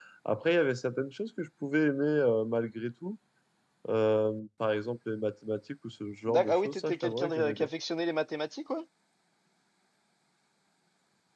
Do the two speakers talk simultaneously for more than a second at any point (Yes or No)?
Yes